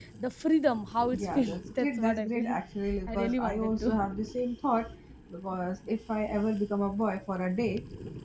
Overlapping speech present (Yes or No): Yes